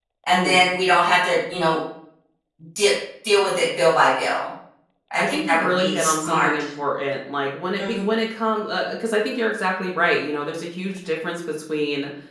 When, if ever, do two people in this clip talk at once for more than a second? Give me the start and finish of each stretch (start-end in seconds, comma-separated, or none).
5.2-6.5